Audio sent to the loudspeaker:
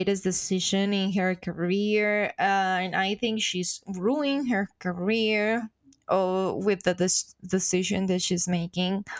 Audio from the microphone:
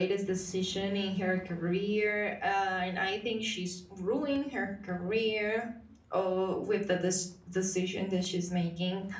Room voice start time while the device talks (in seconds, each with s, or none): none